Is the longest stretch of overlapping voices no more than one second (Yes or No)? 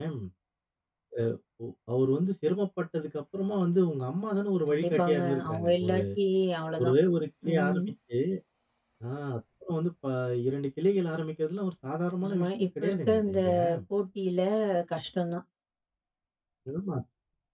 No